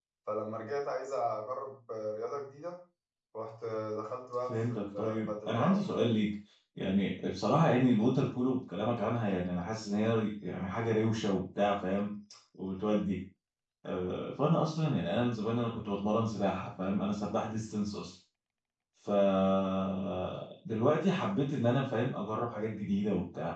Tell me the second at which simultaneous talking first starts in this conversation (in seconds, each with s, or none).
4.5 s